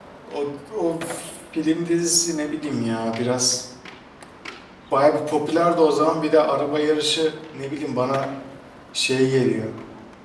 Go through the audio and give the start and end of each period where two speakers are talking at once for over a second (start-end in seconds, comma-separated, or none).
none